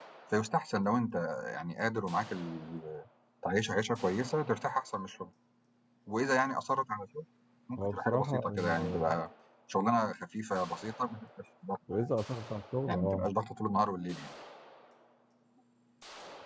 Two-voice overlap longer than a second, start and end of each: 7.8-9.2

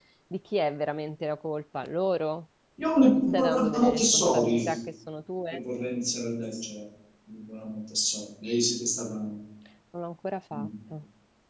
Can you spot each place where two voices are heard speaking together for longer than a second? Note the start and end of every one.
3.0-4.6

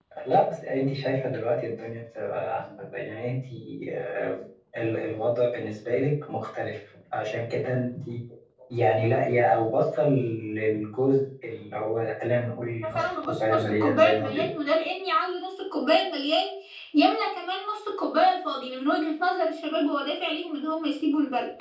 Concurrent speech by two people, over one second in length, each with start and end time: 12.9-14.5

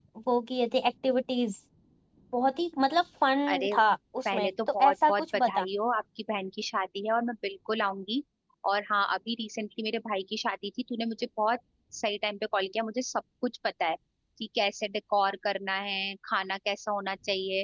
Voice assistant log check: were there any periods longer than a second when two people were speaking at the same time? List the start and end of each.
4.2-5.7

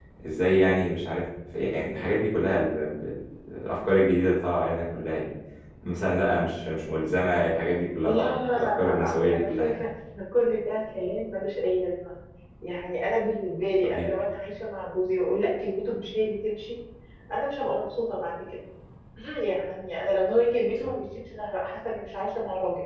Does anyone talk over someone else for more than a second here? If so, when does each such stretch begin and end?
8.0-9.8

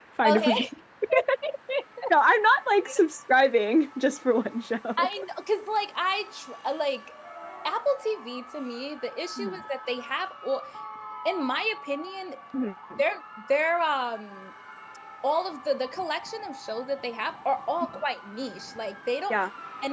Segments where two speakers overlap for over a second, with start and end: none

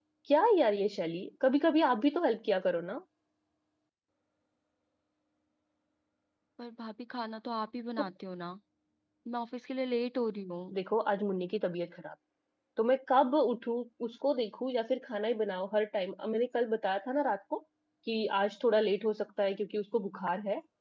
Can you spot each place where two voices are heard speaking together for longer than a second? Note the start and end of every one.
none

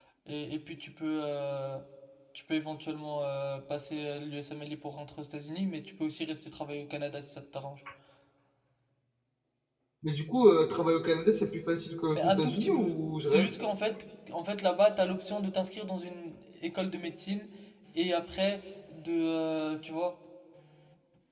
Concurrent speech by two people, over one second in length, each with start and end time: 12.1-13.5

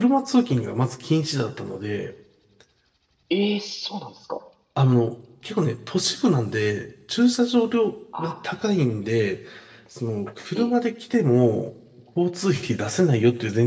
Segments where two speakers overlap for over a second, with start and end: none

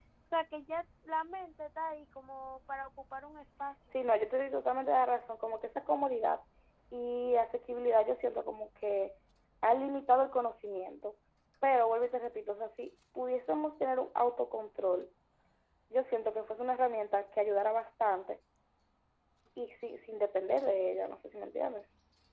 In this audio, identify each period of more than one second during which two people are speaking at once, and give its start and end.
none

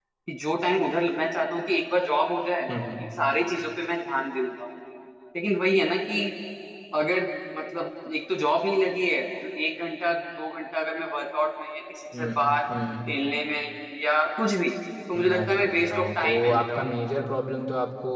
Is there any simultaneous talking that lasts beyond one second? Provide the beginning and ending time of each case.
15.2-16.9

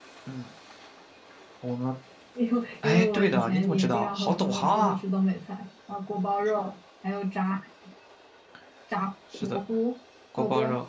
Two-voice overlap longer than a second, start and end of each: 2.8-5.0

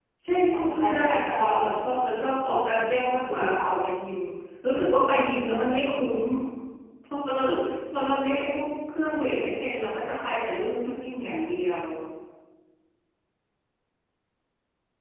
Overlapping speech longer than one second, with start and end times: 0.5-2.0

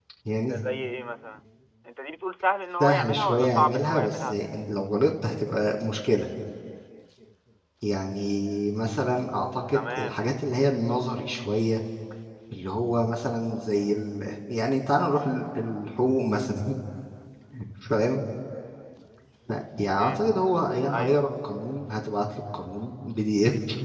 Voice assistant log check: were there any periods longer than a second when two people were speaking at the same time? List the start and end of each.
2.8-4.4

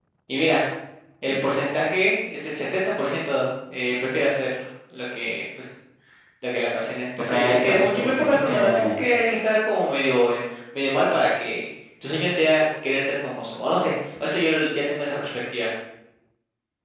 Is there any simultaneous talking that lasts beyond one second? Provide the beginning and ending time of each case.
7.2-9.0

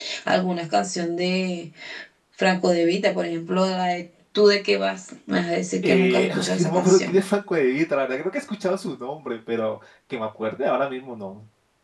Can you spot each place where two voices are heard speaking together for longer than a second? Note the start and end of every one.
5.8-7.2

